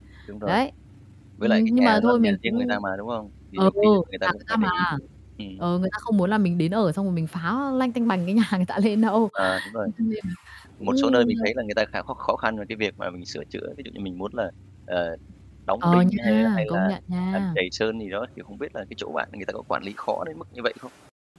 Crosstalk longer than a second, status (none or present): present